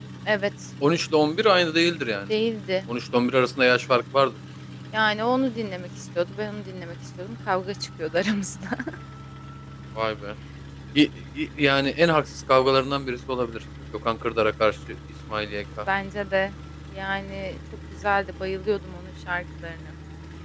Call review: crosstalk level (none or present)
none